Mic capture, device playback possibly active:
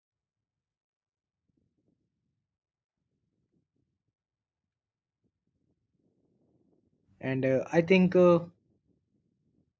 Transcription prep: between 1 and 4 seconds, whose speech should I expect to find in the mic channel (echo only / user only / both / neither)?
neither